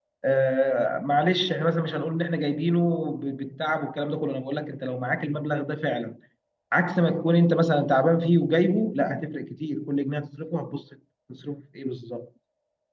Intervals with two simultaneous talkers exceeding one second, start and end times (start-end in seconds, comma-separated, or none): none